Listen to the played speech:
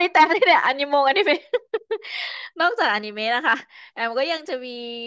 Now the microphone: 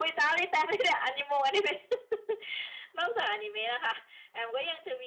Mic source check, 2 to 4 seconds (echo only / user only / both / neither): echo only